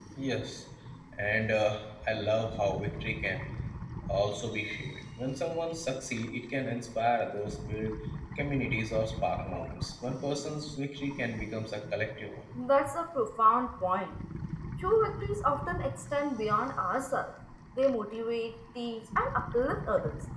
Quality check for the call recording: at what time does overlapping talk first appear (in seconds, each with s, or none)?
none